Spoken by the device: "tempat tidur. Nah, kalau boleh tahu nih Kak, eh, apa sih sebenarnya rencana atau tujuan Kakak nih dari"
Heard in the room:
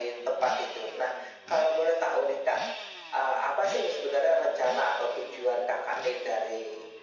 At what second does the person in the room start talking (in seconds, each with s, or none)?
none